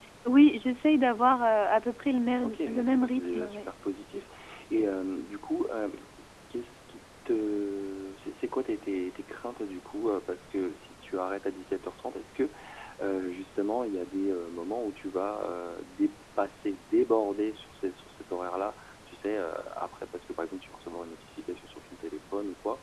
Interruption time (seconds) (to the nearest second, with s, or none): 2 s